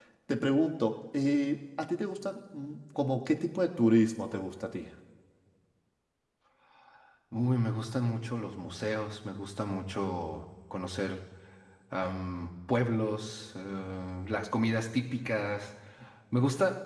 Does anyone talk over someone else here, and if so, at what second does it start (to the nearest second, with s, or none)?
none